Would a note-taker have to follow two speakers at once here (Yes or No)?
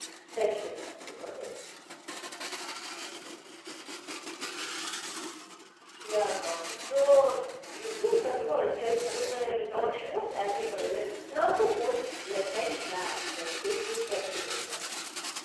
Yes